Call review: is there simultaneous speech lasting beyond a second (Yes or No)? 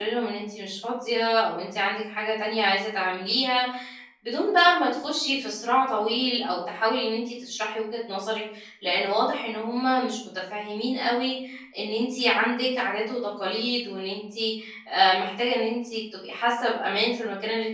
No